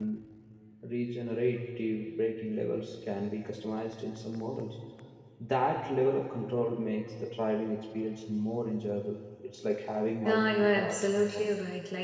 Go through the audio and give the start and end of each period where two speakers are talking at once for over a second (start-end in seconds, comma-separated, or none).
10.2-11.5